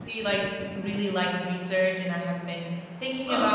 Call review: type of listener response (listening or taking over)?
listening